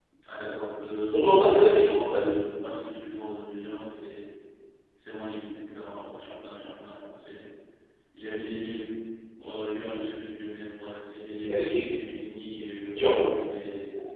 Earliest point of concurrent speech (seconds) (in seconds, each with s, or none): 1.1 s